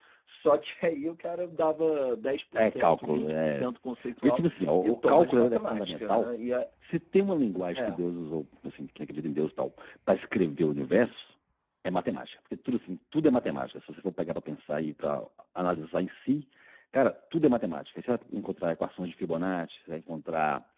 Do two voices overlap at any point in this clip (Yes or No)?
Yes